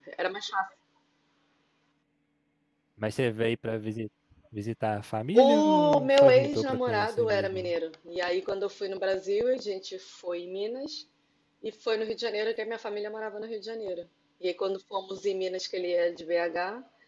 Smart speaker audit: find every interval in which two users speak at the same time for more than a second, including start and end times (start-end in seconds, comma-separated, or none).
5.3-7.7